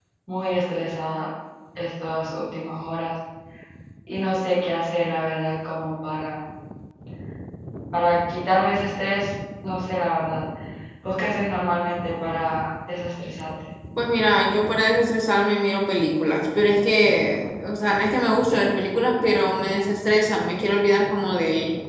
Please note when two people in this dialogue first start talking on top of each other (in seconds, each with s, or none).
none